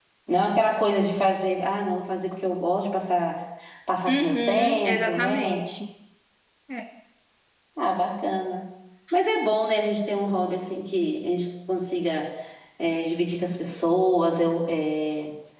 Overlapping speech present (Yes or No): Yes